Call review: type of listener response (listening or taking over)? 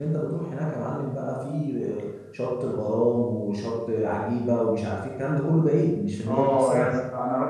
taking over